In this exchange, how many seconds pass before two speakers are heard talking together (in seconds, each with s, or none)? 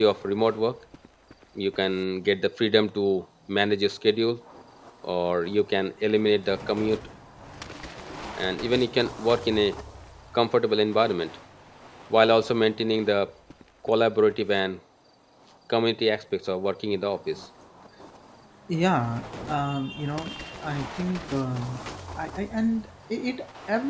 none